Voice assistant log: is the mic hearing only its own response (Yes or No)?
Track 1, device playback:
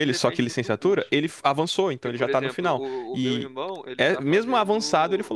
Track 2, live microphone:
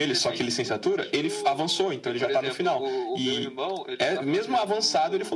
No